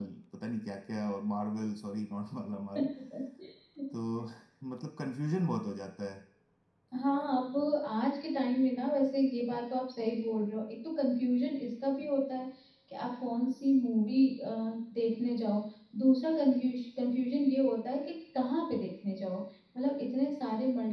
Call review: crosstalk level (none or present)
none